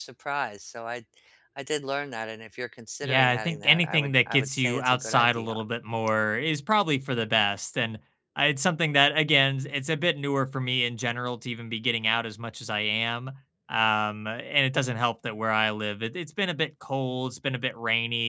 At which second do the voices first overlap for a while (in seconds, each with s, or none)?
3.0 s